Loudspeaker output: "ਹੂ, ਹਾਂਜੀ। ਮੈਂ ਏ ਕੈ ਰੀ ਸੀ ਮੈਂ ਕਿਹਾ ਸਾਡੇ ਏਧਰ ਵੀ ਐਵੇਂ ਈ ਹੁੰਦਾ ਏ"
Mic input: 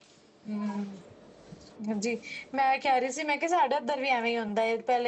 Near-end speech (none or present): none